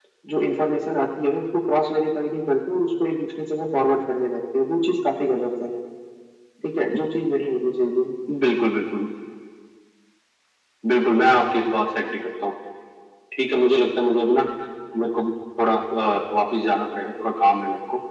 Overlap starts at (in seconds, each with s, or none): none